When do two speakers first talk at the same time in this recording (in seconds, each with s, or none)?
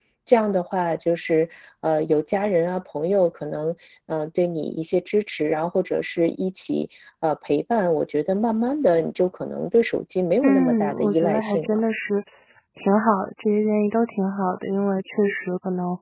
10.4 s